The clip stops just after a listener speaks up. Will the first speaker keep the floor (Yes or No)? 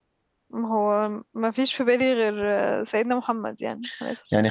No